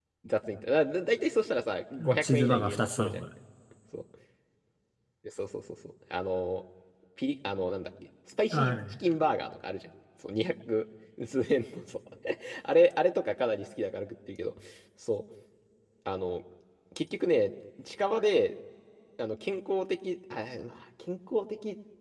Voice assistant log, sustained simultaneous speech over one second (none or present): present